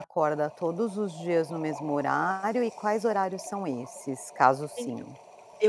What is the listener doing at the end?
taking over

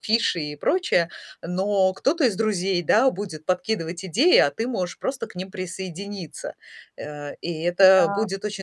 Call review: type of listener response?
listening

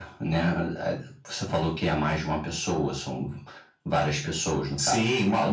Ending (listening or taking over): taking over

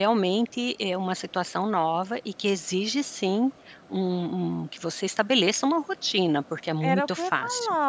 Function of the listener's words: taking over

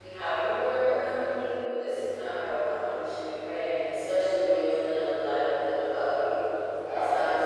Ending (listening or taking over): listening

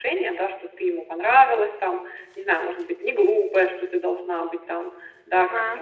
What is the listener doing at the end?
listening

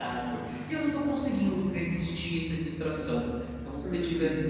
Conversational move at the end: listening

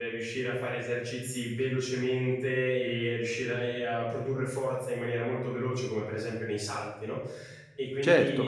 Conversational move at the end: taking over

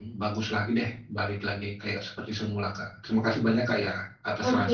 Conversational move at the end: taking over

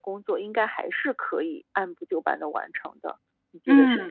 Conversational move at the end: taking over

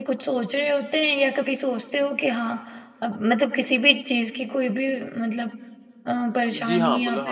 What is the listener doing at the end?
taking over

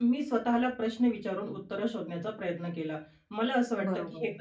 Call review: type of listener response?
listening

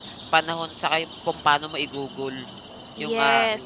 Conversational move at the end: taking over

